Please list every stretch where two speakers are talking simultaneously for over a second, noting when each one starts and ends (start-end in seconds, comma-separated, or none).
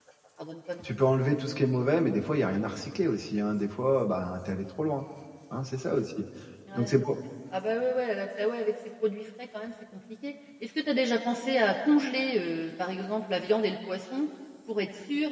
none